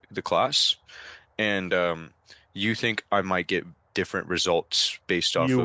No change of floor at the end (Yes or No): No